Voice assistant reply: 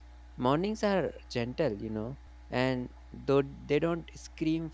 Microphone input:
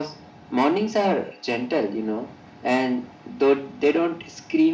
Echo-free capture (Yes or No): No